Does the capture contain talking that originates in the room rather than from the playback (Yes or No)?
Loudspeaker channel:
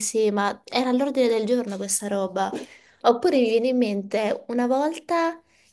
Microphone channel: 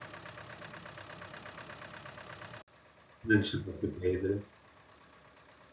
Yes